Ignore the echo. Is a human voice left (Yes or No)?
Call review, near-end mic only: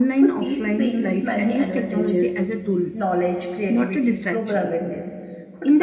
Yes